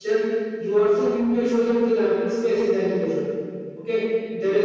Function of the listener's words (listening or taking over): listening